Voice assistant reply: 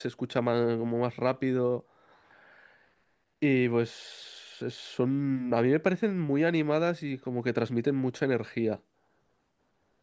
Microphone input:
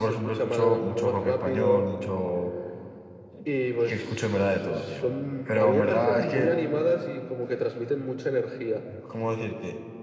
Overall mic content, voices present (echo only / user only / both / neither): both